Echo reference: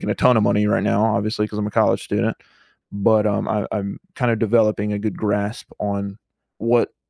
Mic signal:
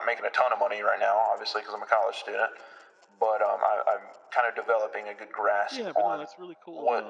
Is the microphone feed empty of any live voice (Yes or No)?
No